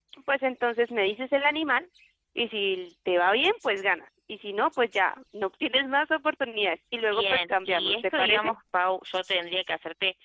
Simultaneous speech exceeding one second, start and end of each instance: 7.1-8.5

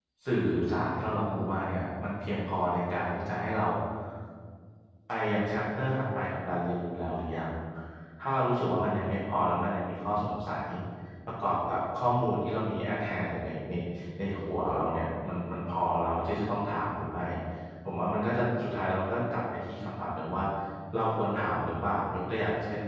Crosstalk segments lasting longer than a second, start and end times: none

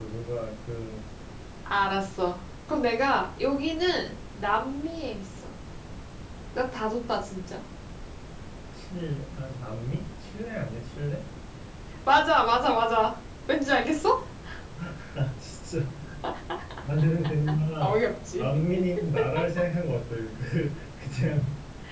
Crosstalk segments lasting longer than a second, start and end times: none

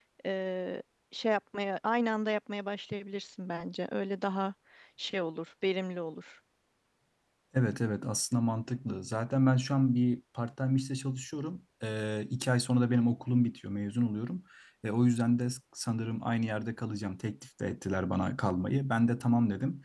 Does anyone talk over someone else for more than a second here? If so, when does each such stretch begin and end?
none

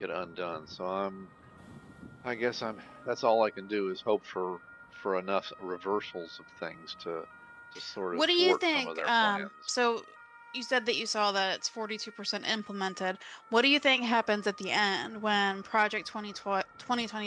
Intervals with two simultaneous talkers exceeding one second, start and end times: 8.1-9.5

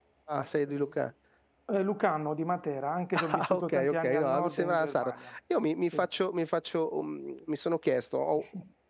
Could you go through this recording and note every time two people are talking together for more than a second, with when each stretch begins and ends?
3.1-5.1

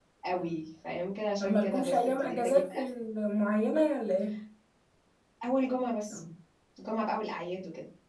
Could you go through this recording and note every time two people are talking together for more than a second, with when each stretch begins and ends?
1.4-2.8

